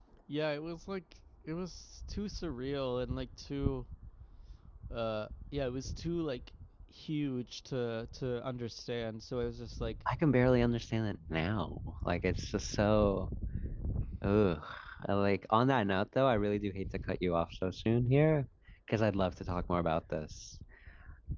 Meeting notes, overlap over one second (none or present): none